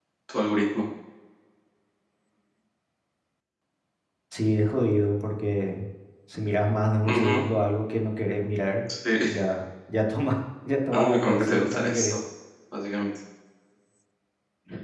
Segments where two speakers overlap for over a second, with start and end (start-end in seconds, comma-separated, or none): 10.9-12.1